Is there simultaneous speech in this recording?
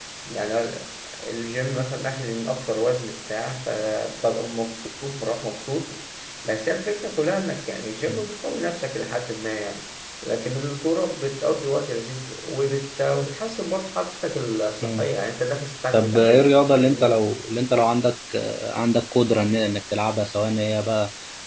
Yes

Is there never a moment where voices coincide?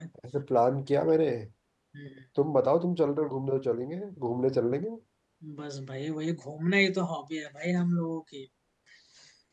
Yes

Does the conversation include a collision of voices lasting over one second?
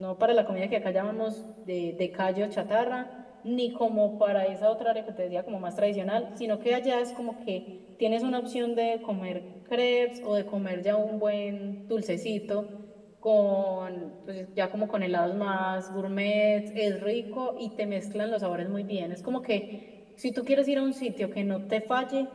No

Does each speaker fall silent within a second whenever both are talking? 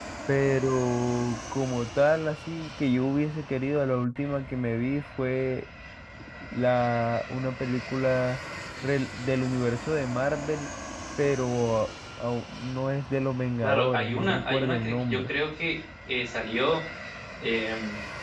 No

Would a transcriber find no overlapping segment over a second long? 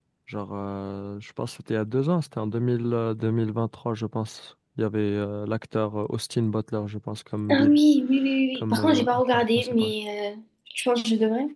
No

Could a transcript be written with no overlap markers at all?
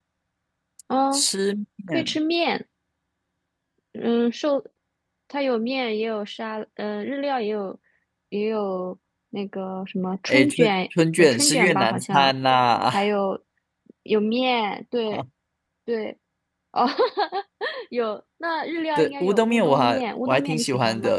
No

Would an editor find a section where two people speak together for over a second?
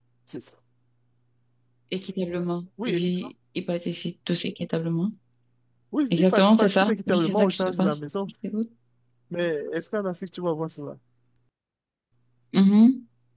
Yes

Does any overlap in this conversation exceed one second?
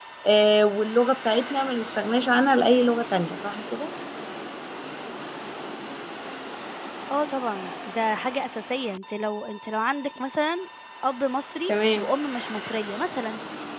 No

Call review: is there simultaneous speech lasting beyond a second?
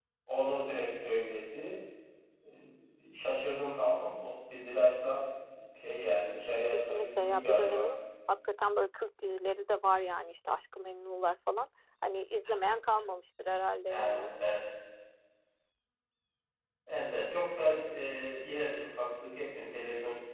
Yes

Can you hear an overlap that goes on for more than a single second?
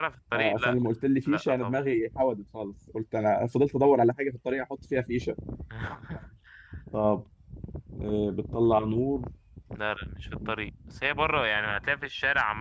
No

